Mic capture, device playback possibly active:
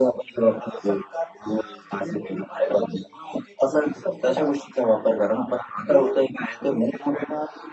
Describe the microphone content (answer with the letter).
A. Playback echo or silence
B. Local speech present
A